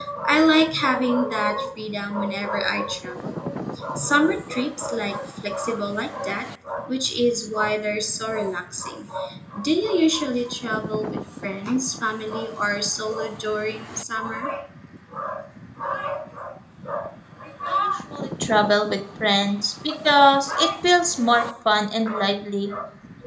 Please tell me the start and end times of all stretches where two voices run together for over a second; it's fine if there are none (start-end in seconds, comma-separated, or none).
none